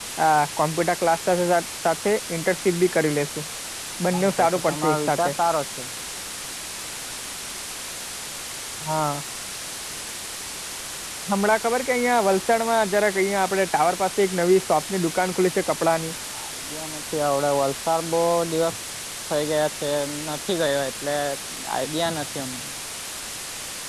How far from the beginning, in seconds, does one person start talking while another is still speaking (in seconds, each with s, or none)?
4.1 s